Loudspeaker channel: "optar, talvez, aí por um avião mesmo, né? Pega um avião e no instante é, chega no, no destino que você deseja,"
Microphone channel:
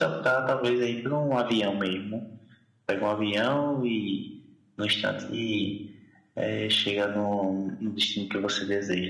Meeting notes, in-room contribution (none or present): none